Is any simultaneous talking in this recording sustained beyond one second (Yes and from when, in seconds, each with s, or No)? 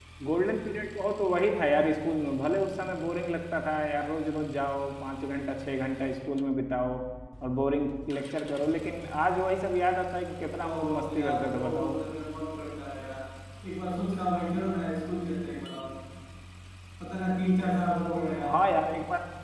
Yes, from 10.6 s